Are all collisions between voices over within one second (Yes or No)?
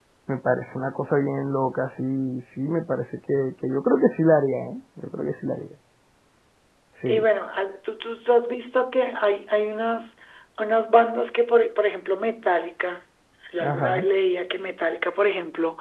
Yes